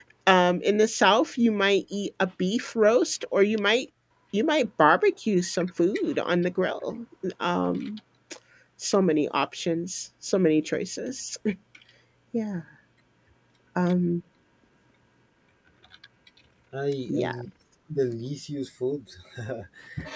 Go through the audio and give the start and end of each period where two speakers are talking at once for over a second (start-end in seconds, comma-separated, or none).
none